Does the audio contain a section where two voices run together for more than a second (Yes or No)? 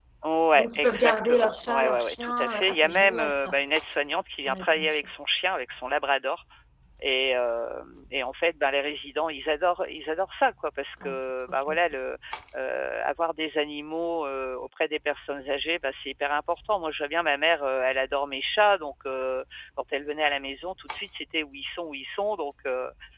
Yes